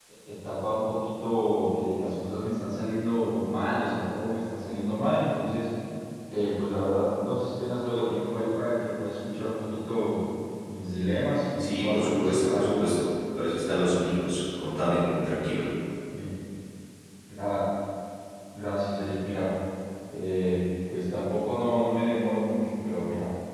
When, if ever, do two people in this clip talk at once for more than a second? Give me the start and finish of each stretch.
11.6-12.8

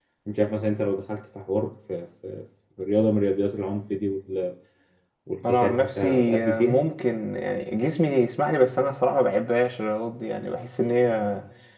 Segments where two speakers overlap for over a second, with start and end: 5.5-6.8

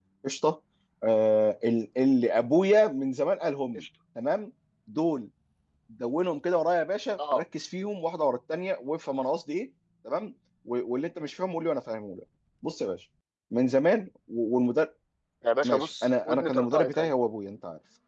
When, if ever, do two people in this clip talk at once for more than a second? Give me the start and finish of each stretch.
15.6-17.1

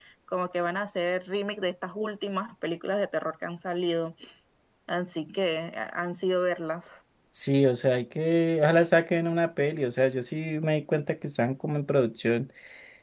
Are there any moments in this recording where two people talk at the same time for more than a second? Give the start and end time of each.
none

